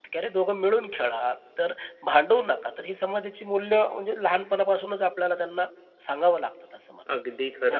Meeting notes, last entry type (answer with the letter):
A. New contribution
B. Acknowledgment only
A